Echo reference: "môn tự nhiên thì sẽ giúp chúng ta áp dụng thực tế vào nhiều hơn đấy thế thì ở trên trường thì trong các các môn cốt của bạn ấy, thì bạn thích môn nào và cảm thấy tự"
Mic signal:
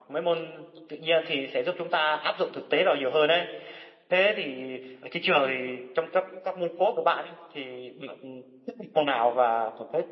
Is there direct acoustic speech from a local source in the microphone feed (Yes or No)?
No